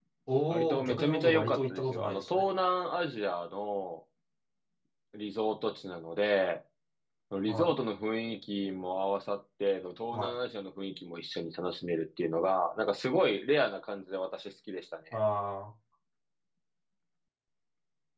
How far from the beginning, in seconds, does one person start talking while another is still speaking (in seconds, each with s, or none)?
0.5 s